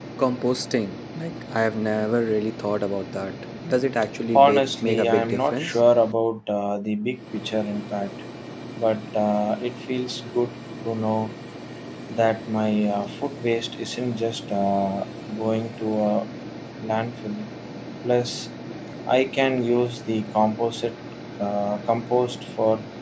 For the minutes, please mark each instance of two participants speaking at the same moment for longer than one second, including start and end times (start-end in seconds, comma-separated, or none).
4.3-5.8